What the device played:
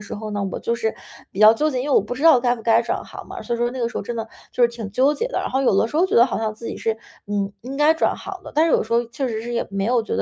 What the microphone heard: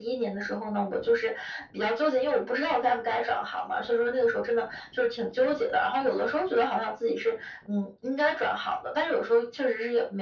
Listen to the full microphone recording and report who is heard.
echo only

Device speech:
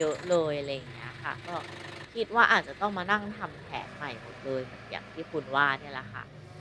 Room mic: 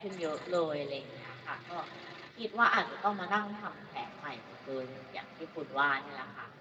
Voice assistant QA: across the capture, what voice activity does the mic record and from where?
echo only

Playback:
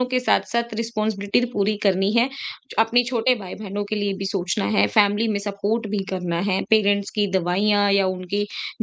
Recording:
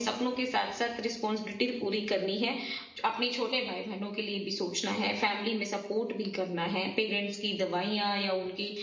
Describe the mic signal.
echo only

